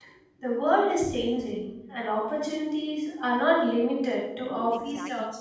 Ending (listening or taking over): taking over